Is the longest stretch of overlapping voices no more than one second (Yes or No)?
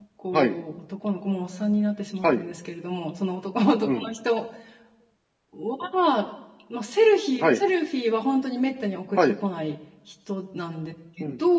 Yes